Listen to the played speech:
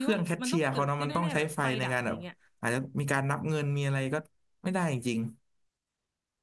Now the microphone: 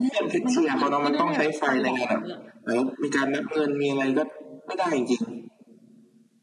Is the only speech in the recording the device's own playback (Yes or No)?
Yes